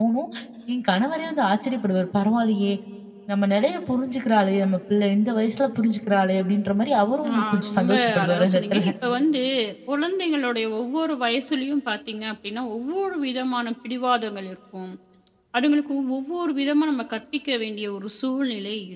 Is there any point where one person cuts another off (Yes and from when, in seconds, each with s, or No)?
Yes, from 7.2 s